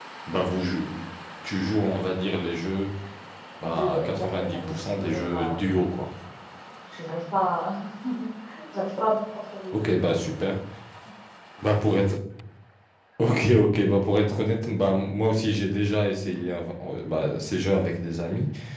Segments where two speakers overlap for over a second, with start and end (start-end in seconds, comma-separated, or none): 3.6-5.9